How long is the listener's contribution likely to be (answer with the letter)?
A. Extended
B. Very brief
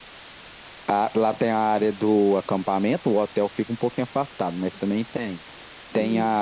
B